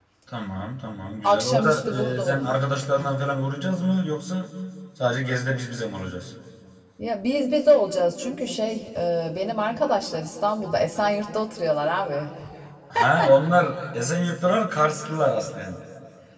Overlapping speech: Yes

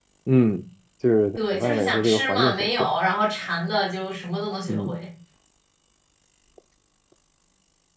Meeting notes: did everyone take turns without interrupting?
No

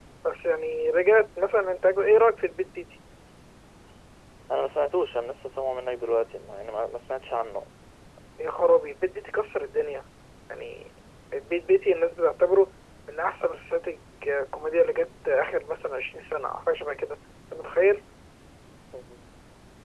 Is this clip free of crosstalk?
Yes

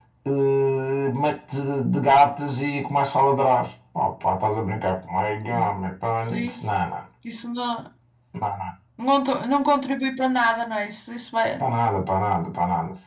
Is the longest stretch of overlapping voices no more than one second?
Yes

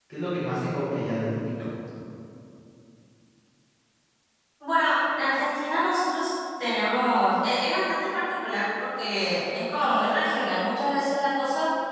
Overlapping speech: No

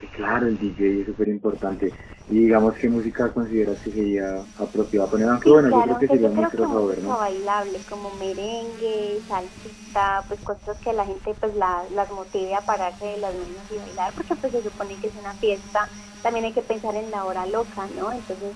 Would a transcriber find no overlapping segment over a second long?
No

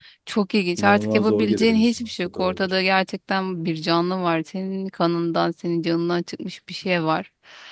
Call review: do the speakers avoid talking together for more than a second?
No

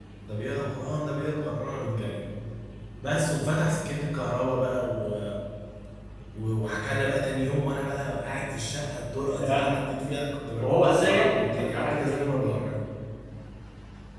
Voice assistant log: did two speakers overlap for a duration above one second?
Yes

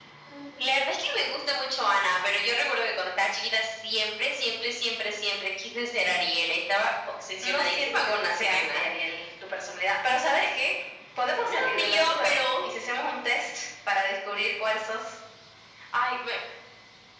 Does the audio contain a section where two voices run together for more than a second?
Yes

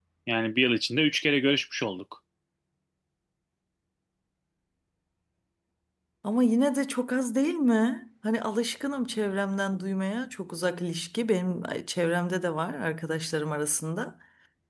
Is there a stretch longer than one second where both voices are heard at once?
No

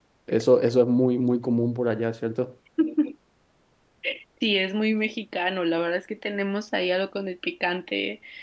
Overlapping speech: No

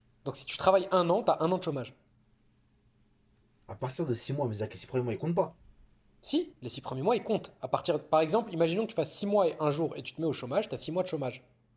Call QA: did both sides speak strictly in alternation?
Yes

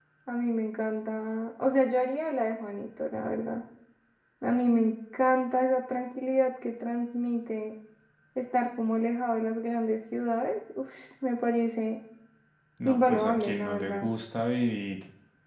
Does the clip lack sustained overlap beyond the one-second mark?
No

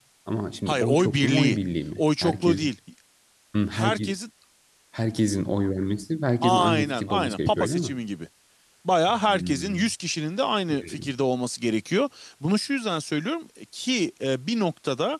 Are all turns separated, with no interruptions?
No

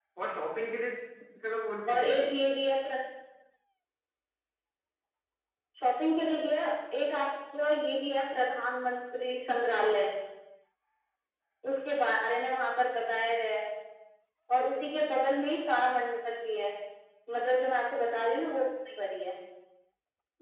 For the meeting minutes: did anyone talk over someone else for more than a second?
No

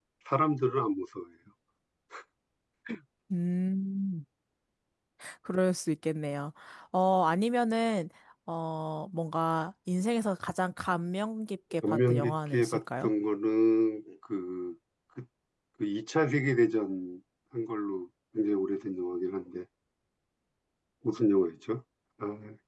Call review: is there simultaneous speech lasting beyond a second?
Yes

